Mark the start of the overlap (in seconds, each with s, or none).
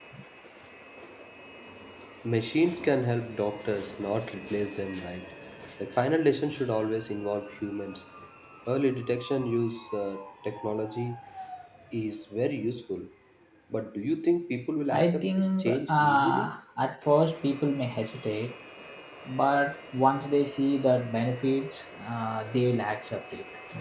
14.9 s